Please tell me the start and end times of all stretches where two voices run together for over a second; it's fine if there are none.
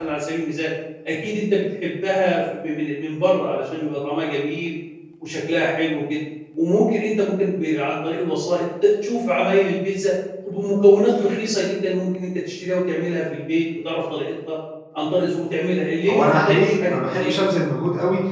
16.1-17.3

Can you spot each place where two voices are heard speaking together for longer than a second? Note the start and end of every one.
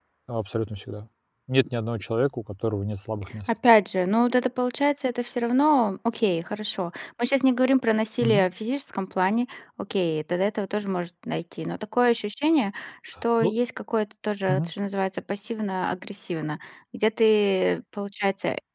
none

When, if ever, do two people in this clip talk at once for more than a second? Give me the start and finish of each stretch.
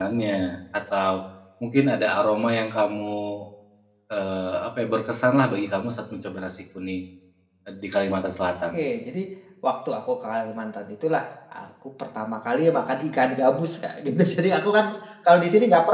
none

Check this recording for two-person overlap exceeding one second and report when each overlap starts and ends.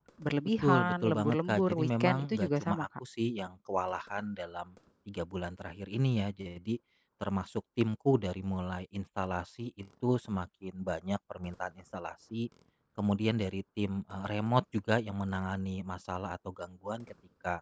0.6-2.9

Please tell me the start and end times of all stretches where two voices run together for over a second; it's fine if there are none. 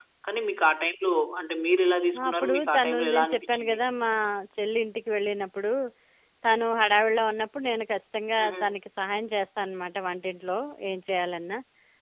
2.2-3.8

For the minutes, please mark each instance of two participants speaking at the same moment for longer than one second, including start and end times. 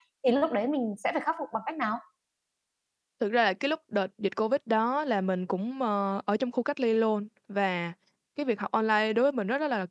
none

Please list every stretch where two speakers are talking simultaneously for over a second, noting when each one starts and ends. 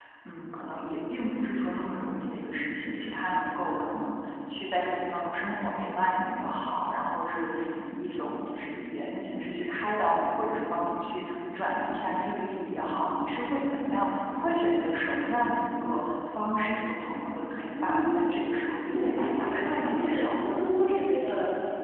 18.8-20.5

